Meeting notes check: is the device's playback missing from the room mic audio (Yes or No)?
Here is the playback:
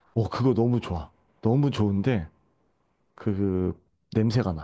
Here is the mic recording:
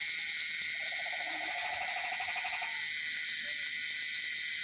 Yes